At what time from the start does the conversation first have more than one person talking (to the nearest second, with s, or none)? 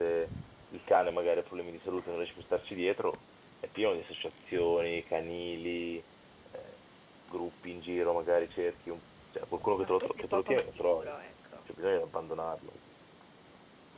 10 s